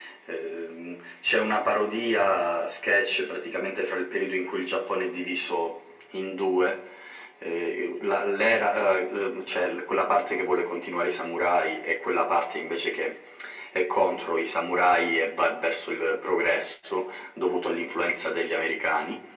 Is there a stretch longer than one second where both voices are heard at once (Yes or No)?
No